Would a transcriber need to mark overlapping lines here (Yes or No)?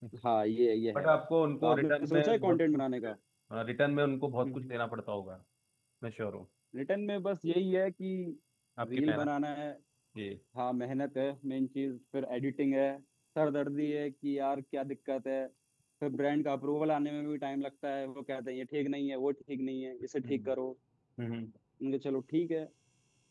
Yes